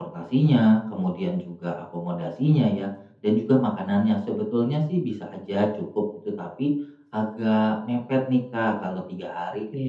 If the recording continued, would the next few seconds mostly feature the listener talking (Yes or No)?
No